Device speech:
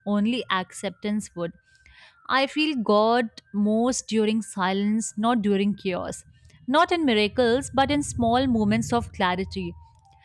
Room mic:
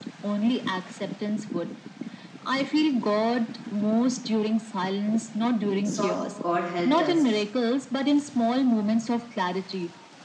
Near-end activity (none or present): present